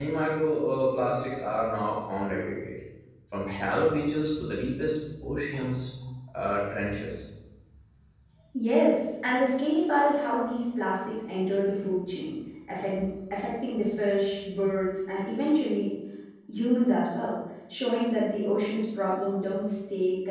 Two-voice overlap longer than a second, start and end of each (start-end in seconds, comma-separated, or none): none